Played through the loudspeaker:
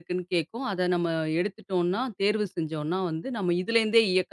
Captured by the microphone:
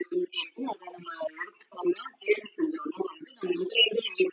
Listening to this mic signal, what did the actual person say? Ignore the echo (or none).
none